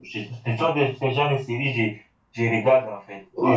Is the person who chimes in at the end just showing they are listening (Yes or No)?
No